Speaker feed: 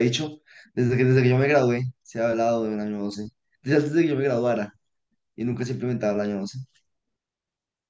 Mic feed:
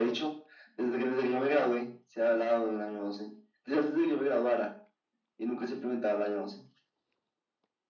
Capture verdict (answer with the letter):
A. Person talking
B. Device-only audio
B